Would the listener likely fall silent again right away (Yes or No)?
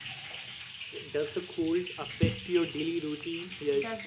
No